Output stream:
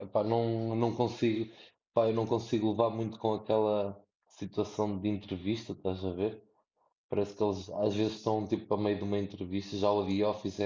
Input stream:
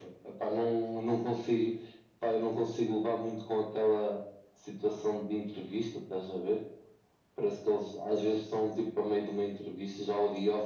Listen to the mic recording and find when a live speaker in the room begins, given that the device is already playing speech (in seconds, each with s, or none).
none